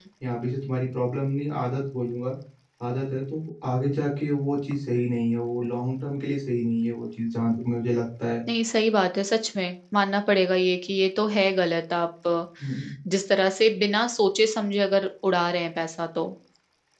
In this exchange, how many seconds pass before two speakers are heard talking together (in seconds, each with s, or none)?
none